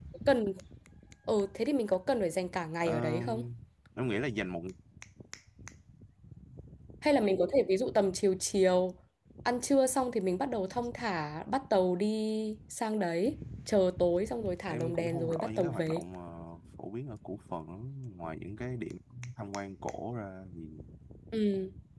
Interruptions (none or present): present